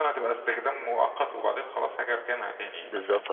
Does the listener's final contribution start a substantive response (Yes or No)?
Yes